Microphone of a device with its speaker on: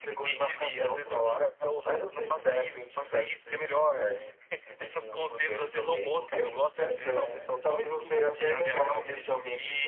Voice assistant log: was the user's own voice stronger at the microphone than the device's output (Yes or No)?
No